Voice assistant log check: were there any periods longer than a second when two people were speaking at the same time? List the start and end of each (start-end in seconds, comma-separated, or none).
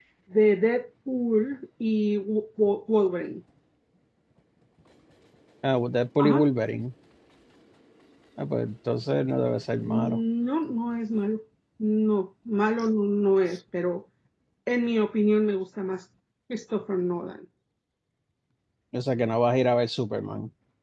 none